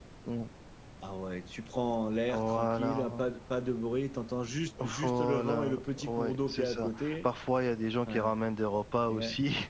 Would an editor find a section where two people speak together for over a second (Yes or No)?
Yes